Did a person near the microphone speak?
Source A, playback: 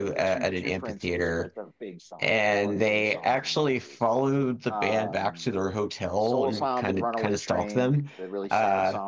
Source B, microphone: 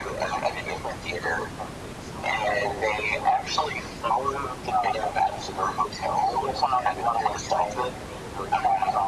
No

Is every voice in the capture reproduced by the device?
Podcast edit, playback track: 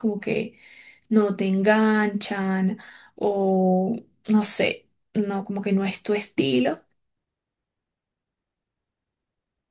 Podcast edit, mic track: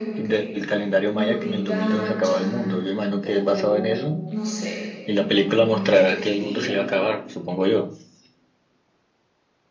No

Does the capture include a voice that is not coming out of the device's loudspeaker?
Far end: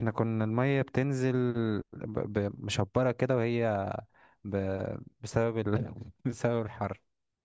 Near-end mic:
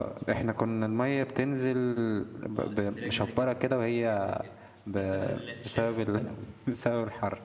Yes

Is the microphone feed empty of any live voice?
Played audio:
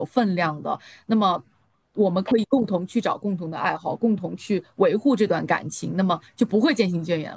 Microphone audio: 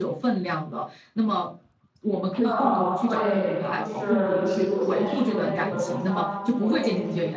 No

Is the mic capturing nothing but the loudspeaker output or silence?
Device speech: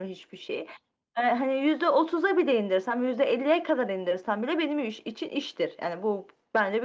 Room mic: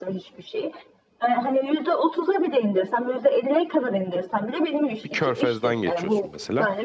No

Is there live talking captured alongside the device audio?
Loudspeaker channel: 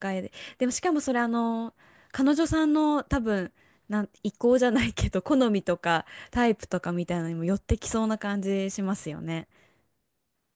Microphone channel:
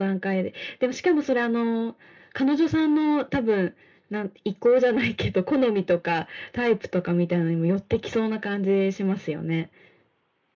No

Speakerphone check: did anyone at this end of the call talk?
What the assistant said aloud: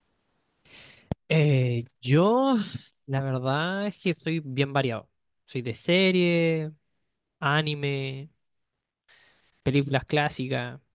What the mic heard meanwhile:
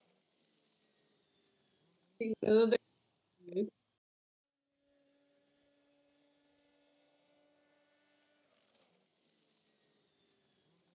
Yes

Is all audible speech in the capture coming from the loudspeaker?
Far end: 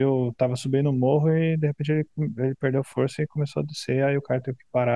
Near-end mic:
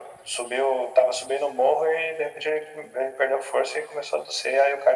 Yes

